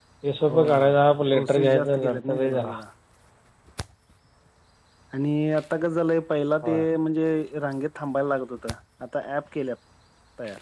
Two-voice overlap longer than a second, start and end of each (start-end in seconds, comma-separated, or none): 1.3-2.7